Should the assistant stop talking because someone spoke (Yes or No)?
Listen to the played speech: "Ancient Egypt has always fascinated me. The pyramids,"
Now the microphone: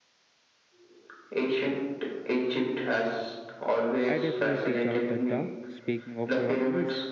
Yes